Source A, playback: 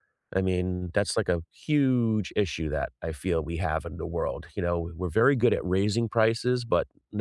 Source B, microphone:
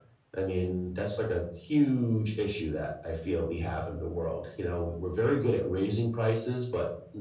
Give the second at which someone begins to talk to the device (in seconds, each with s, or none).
none